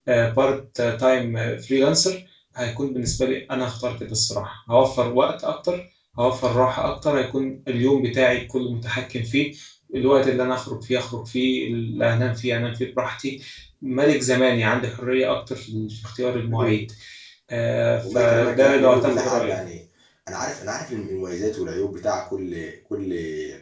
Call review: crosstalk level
present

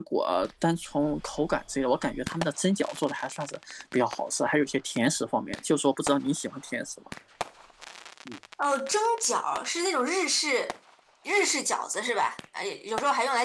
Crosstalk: none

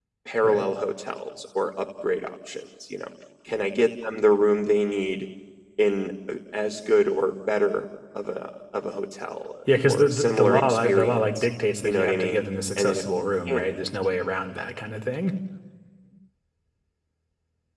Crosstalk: present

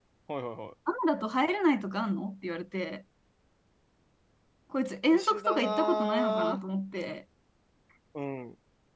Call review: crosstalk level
present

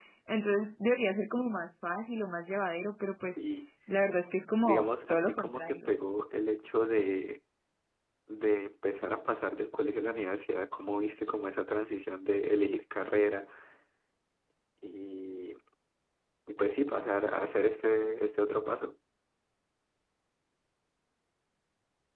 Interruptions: present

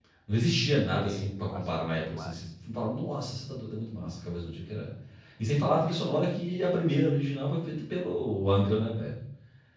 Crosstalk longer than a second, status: present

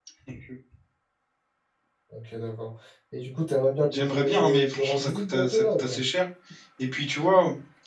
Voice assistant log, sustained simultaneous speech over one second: present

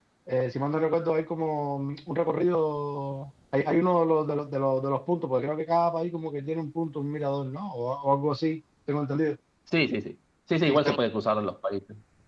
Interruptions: none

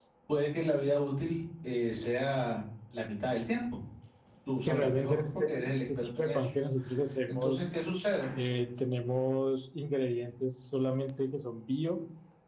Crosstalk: present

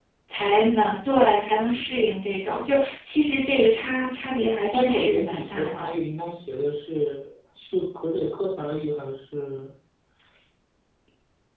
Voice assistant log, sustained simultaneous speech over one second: present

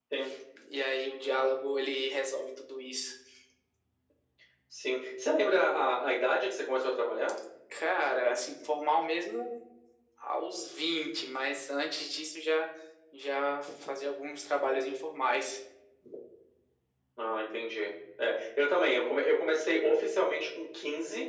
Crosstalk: none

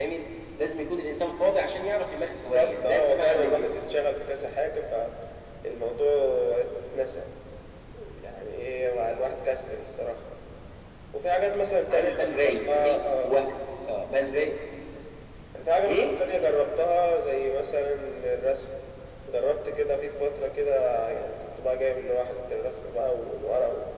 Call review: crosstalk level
present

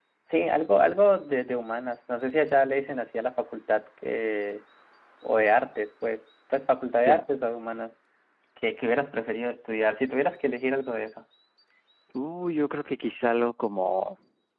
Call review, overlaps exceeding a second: none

